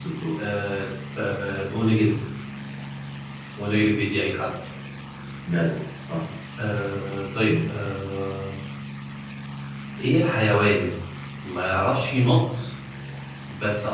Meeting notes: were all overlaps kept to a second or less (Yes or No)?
Yes